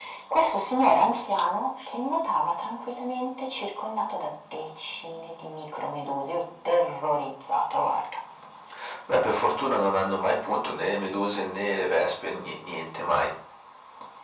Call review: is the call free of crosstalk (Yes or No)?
Yes